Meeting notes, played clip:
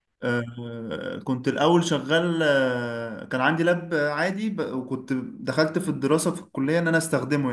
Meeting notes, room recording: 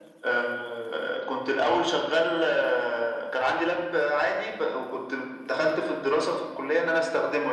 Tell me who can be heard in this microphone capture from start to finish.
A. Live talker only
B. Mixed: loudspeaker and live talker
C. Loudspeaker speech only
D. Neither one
C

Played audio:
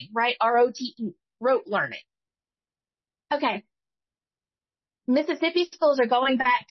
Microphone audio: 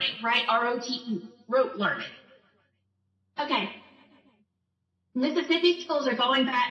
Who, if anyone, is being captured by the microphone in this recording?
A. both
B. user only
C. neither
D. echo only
D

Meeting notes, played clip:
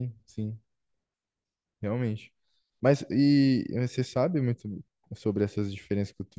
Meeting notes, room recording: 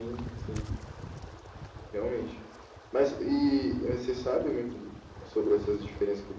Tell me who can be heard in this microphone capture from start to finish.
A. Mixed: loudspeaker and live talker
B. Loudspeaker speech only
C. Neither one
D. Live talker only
B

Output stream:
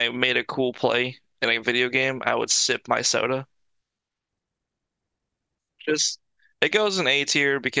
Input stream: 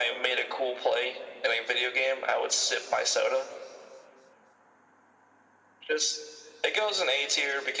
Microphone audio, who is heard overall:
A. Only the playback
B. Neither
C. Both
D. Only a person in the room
A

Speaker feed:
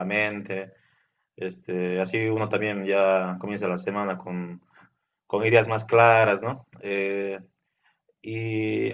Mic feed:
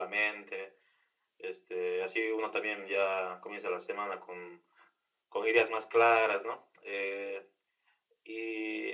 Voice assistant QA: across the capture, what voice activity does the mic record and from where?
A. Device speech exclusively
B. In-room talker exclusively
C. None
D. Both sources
A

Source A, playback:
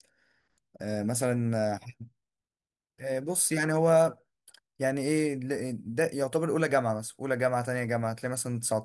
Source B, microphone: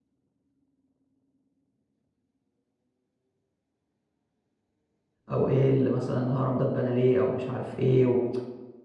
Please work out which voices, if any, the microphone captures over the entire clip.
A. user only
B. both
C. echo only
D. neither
A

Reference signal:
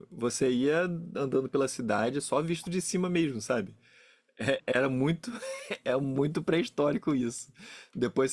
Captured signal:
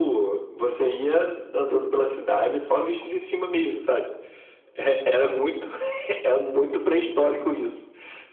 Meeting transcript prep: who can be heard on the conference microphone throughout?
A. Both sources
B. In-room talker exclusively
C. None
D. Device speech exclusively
D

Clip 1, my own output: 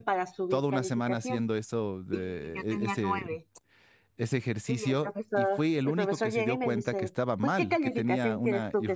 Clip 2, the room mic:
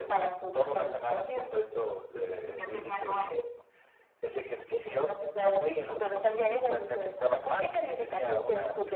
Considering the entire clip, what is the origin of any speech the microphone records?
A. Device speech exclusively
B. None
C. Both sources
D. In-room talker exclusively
A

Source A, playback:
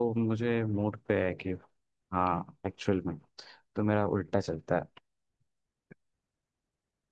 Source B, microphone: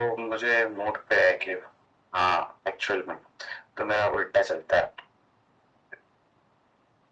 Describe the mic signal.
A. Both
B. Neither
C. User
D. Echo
D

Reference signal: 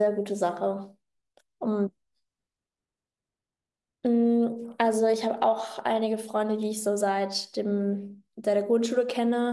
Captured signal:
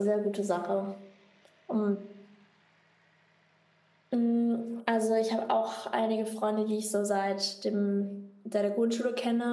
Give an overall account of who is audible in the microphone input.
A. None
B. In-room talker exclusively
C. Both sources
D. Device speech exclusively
D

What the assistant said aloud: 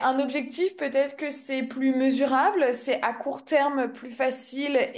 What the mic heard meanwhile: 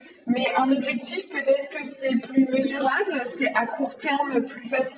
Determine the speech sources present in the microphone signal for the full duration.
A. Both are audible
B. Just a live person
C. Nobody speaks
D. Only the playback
D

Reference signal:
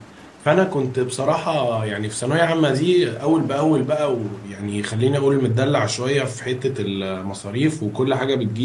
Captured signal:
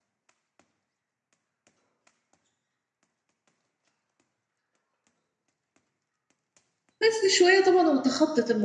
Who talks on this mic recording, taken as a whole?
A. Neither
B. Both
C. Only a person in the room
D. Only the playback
C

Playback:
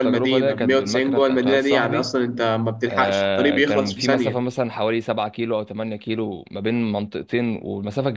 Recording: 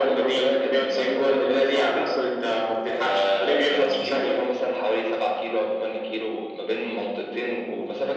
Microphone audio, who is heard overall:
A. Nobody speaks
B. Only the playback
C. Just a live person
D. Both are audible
B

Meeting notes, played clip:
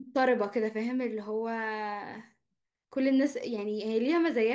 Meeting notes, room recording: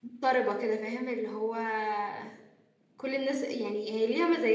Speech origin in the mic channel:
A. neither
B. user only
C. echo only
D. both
C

